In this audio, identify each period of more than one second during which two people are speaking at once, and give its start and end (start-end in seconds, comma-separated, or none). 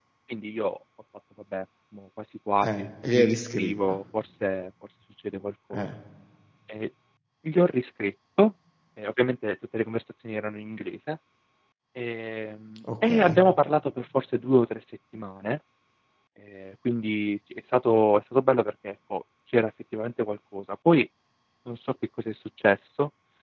2.6-4.0